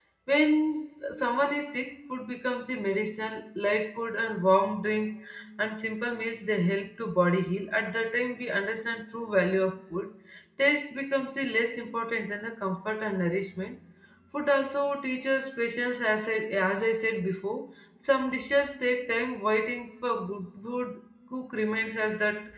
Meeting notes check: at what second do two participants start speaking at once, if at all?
none

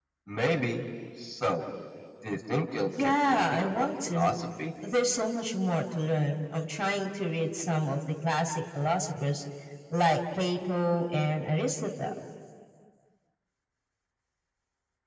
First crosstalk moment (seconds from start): 3.0 s

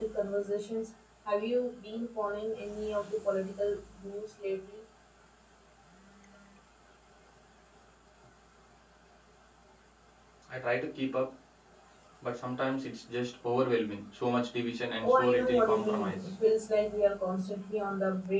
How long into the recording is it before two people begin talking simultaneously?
15.0 s

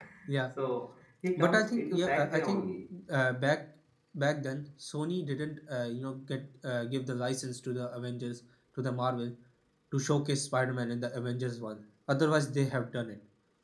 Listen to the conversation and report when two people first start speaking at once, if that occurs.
1.4 s

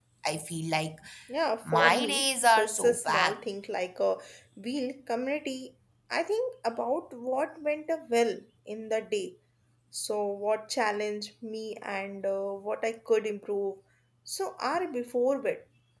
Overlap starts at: 1.6 s

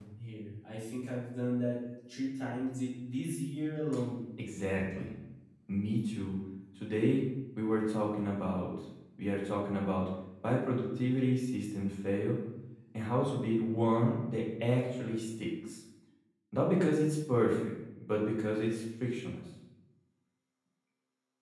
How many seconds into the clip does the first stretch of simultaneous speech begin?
none

